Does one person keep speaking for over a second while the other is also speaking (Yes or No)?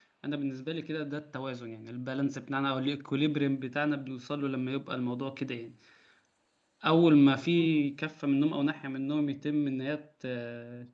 No